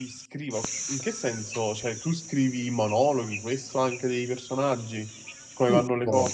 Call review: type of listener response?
taking over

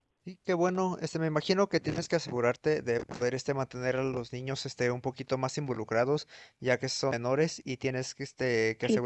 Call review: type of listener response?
listening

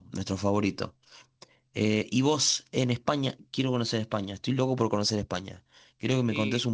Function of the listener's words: listening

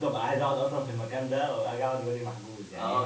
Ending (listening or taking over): taking over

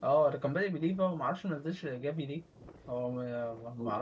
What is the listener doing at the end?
taking over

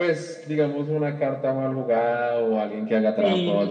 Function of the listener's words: listening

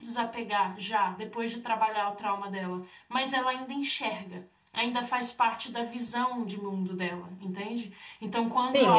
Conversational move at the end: taking over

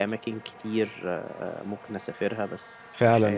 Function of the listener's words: taking over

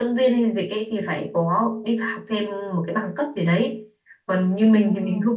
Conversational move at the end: listening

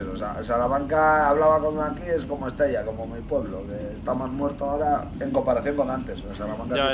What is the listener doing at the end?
taking over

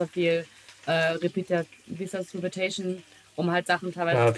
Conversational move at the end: listening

